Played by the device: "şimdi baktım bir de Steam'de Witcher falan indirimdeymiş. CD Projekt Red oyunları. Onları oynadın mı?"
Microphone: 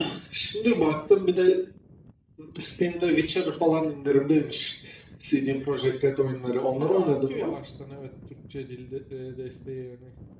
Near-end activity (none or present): present